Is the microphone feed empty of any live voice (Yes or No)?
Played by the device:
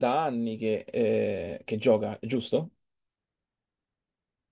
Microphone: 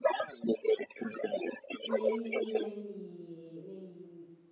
No